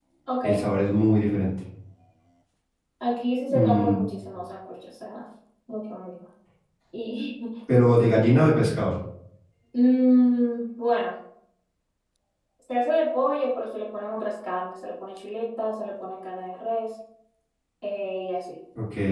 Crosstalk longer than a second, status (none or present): none